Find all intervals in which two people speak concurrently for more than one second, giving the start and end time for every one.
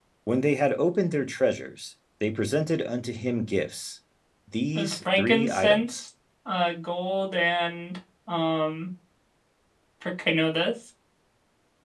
4.8-6.0

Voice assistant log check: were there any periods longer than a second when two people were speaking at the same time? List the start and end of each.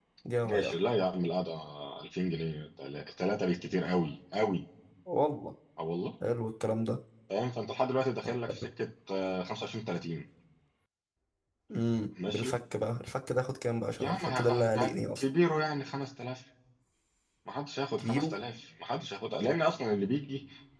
14.0-15.2

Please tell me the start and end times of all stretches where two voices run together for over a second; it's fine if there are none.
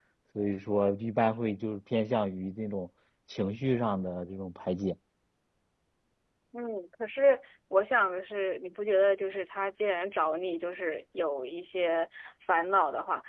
none

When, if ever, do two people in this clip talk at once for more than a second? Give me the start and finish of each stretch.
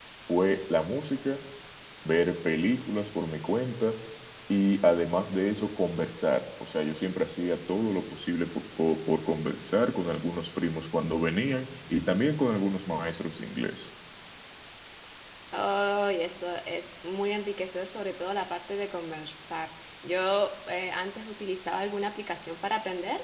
none

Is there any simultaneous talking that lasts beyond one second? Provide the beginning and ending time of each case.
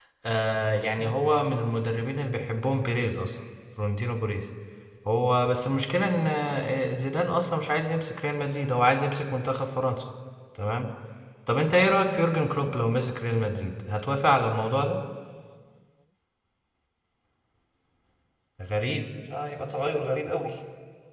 none

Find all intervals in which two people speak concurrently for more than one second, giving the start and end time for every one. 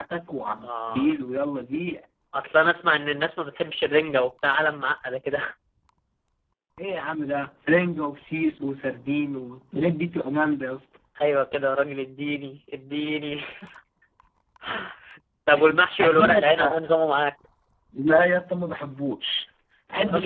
15.5-16.8

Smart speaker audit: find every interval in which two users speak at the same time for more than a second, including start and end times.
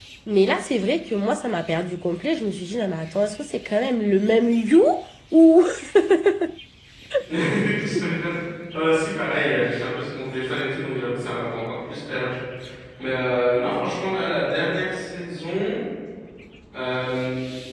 none

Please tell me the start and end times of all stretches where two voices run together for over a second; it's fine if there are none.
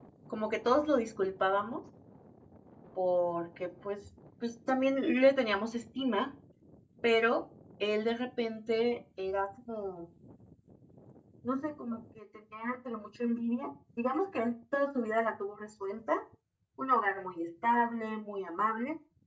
none

